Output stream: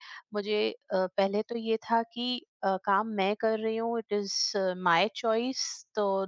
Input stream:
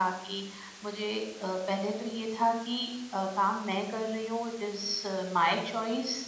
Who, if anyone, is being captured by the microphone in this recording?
echo only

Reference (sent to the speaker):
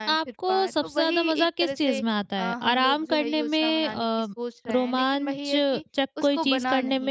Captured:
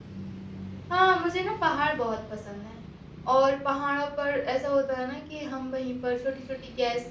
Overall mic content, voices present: user only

